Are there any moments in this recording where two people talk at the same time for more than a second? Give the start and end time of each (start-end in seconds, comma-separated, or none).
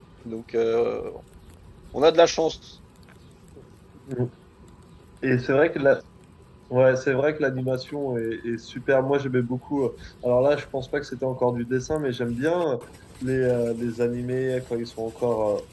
none